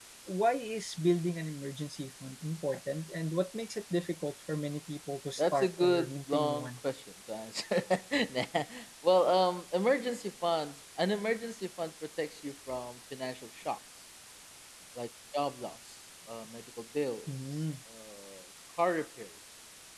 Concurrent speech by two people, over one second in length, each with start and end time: 5.4-6.7

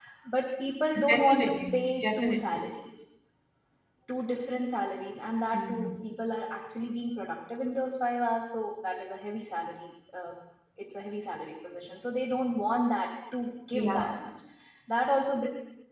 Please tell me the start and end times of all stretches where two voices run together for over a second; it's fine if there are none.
1.1-2.4

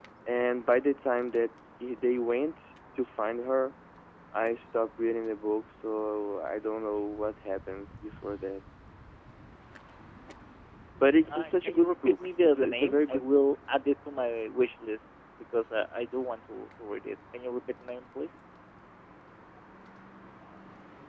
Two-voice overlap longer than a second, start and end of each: 11.3-13.4

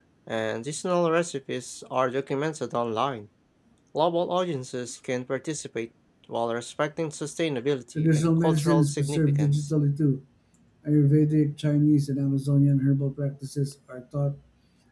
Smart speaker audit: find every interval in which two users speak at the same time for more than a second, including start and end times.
8.0-9.7

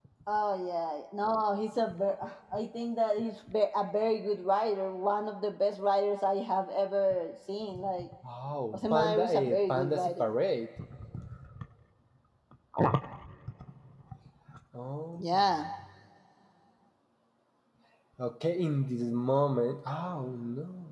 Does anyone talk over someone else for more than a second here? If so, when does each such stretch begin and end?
8.7-10.3

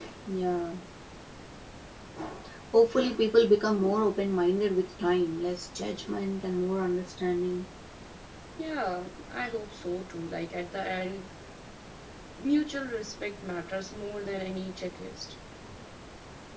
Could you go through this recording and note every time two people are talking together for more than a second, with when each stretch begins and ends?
none

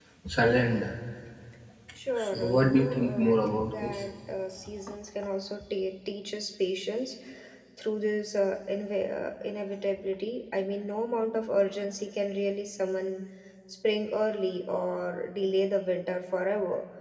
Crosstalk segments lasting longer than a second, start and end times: 2.3-4.0

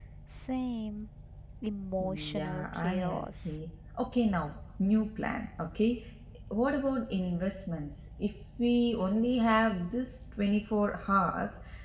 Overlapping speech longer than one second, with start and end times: 2.0-3.5

